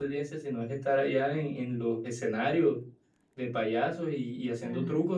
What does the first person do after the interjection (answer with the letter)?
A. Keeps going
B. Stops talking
B